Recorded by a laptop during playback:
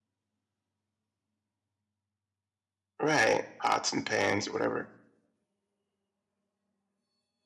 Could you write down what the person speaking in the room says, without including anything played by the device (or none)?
Right, pots and pans or whatever.